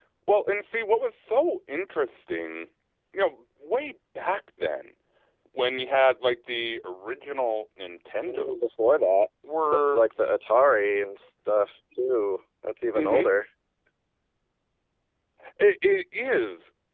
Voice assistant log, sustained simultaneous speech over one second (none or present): none